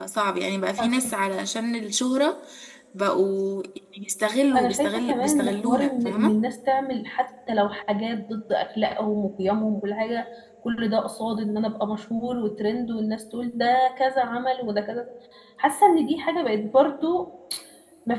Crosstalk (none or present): present